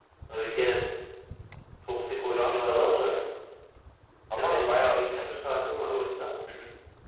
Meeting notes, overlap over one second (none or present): present